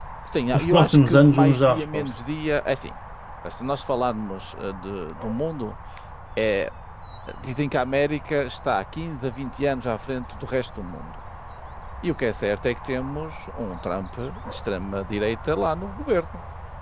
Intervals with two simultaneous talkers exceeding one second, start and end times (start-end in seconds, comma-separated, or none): 0.5-2.0